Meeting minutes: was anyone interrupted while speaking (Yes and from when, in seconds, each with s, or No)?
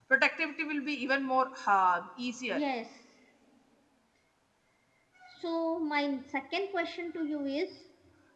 No